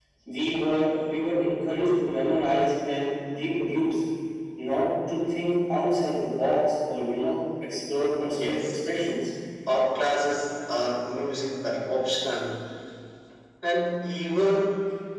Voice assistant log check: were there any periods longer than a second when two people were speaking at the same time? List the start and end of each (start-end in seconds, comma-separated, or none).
none